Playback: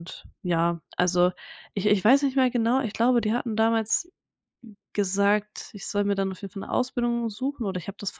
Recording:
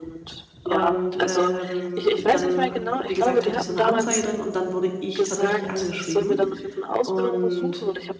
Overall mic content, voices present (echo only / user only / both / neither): both